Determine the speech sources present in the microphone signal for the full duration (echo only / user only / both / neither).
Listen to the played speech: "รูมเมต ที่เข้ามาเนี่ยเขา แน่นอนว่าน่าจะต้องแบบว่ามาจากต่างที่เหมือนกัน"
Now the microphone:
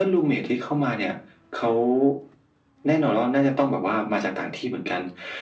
echo only